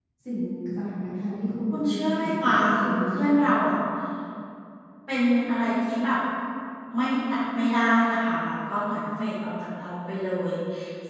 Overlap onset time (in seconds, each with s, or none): 1.7 s